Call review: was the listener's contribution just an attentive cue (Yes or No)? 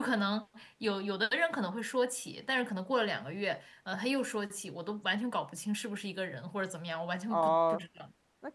No